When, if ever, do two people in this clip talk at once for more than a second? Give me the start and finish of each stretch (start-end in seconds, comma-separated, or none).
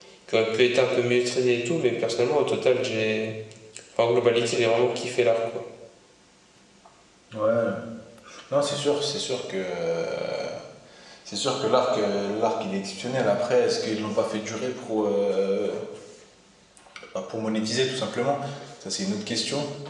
none